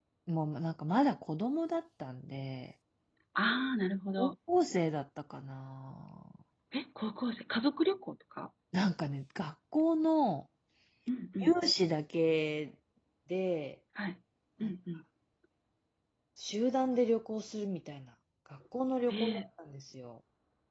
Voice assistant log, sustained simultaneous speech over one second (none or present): none